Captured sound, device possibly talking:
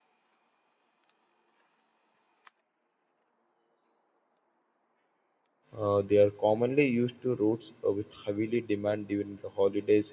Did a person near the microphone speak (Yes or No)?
Yes